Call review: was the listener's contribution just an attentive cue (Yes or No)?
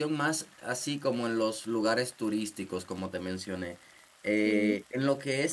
Yes